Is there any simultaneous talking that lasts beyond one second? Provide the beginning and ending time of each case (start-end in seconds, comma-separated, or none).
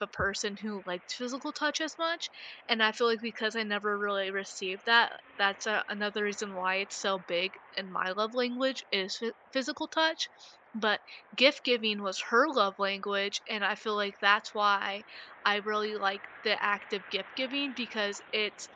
none